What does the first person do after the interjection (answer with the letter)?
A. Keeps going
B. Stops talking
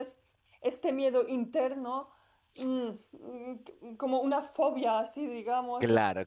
B